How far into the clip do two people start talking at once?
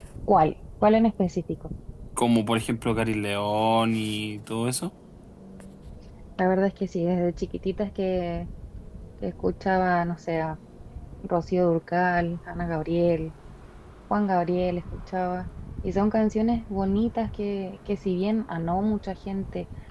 none

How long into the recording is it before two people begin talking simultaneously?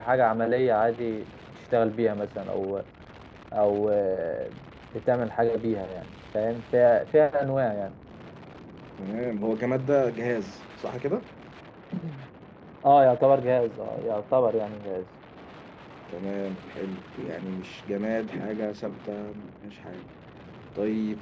none

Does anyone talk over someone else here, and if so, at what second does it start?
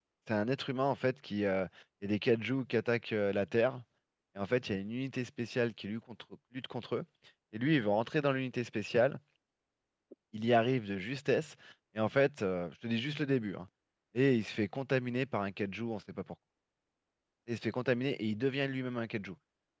none

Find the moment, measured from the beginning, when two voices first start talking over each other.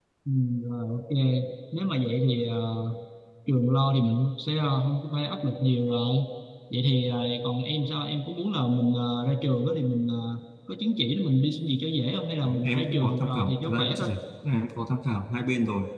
12.4 s

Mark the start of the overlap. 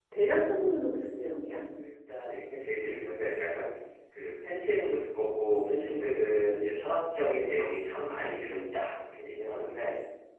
none

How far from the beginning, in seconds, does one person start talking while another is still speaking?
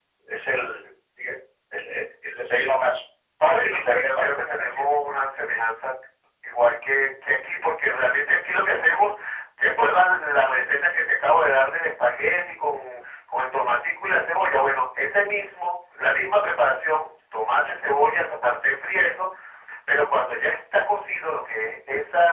3.5 s

